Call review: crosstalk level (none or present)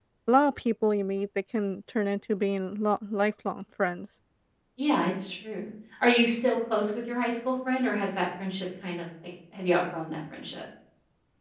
none